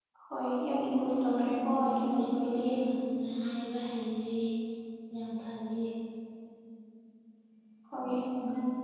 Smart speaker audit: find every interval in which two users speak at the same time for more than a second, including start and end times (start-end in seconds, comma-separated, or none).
1.2-2.7